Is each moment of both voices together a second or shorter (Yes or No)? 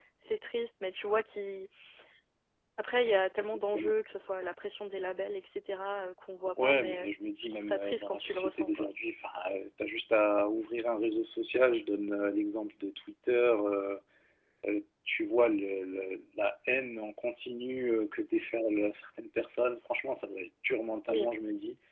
No